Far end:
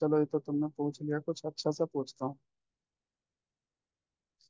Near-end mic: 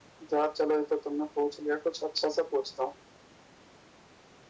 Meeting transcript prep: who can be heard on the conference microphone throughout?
echo only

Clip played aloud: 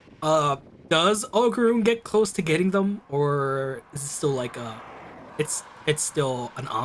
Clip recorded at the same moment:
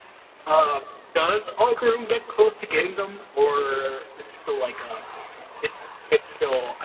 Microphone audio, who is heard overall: echo only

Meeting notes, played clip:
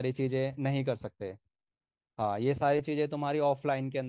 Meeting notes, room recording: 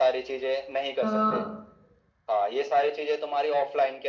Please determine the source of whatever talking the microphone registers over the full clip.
both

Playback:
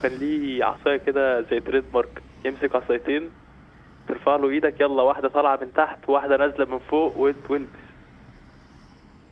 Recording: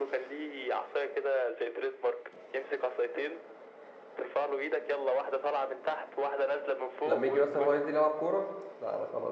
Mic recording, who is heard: both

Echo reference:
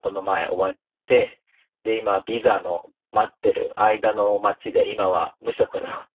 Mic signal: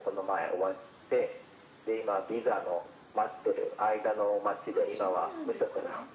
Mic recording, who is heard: both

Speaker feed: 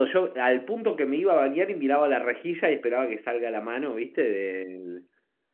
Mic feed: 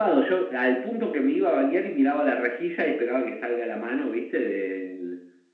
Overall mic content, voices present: echo only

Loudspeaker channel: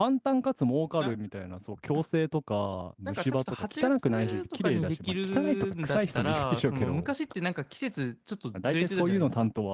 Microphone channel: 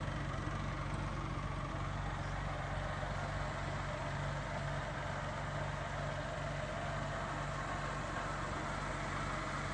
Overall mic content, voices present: neither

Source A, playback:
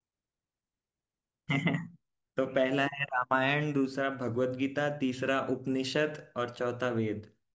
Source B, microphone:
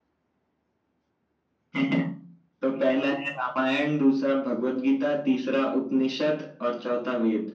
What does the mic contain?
echo only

